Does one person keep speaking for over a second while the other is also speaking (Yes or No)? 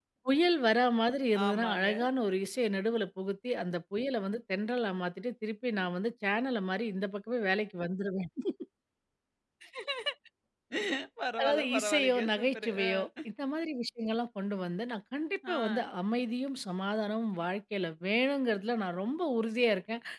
Yes